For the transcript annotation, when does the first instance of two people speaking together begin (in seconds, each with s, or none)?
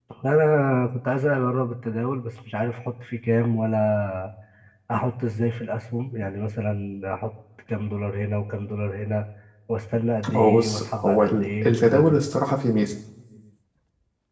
10.4 s